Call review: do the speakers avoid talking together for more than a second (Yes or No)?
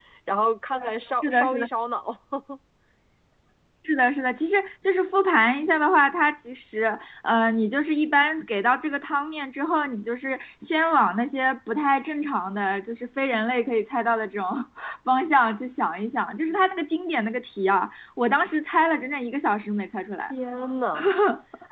Yes